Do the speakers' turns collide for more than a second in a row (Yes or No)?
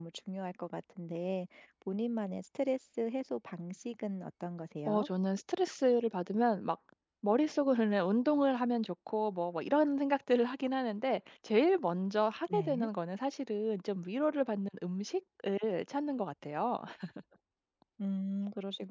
No